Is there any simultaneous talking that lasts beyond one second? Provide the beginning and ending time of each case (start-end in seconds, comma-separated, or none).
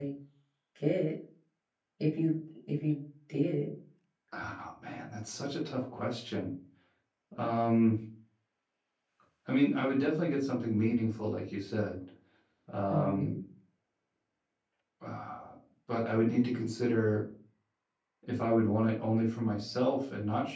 none